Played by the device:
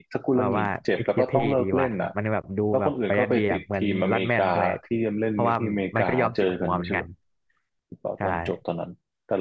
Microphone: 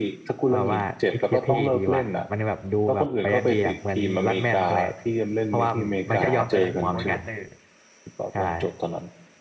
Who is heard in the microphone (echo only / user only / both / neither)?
both